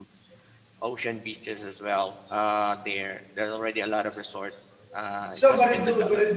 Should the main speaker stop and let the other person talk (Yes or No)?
Yes